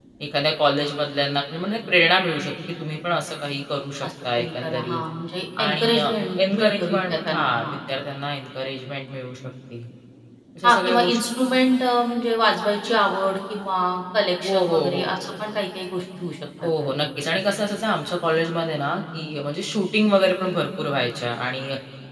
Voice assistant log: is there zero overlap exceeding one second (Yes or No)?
No